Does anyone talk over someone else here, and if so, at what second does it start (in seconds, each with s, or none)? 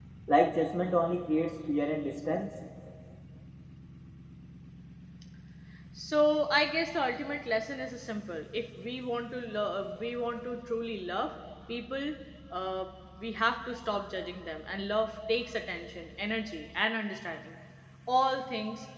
none